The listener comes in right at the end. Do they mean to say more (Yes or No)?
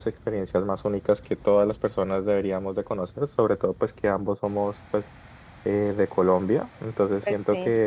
No